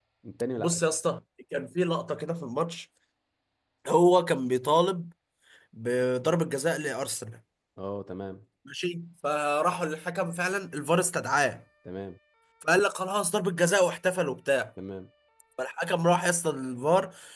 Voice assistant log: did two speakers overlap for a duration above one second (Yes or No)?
No